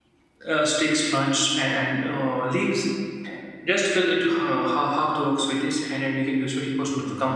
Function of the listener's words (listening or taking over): listening